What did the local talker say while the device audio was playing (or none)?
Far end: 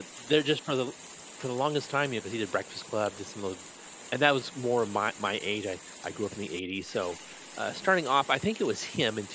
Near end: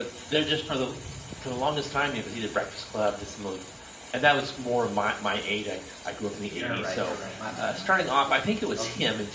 You're right, you're right. My bad, my bad, okay, okay.